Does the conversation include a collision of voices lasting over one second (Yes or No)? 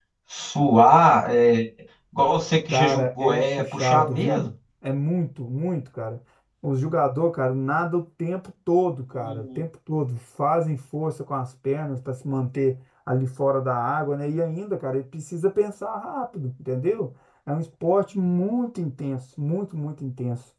Yes